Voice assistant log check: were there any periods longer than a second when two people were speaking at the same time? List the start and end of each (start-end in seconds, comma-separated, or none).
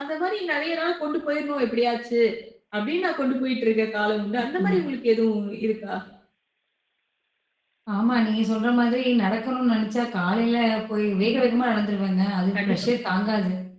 none